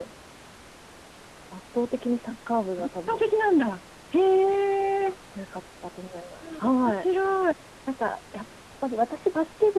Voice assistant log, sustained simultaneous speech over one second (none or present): none